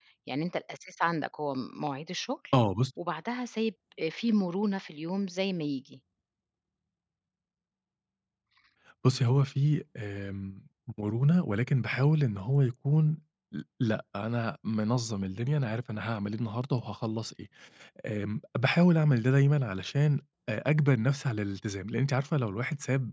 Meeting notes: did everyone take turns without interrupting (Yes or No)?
Yes